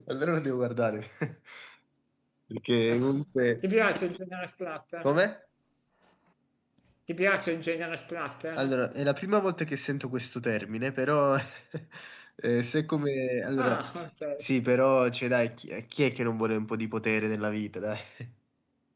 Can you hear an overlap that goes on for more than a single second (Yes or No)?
No